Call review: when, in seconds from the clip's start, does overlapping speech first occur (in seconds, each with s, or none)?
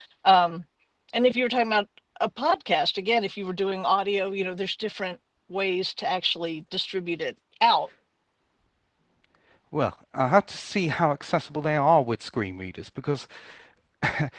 none